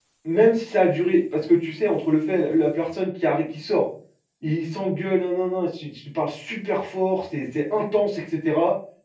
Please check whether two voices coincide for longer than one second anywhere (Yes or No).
No